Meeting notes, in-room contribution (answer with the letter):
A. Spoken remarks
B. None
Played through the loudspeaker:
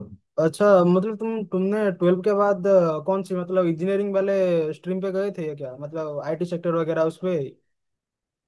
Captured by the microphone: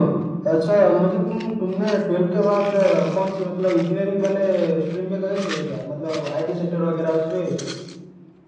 B